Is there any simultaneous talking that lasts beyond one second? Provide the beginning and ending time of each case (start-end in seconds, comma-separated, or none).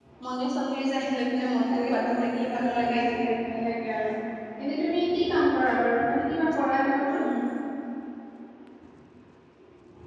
1.7-3.0